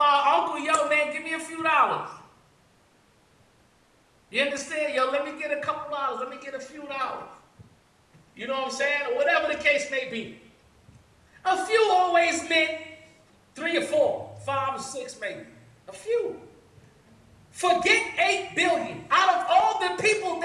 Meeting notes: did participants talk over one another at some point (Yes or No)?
No